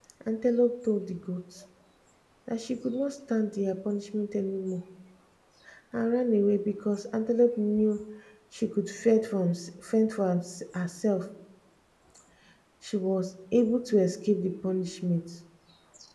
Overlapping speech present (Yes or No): No